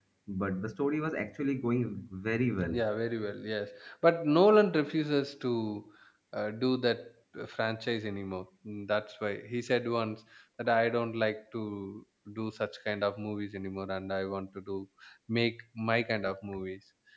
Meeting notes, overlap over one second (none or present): none